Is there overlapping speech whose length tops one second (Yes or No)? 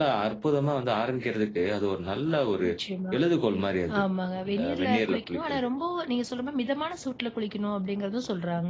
Yes